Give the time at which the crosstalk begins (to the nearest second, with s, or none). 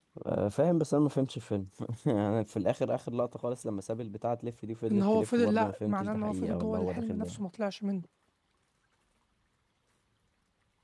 5 s